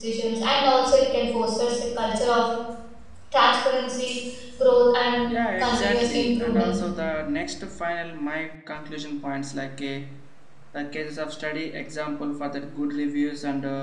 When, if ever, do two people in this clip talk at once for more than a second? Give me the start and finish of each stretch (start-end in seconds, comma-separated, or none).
5.3-6.8